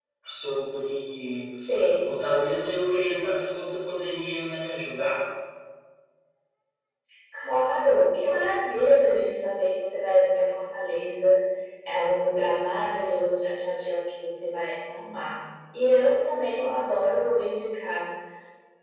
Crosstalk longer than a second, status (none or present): none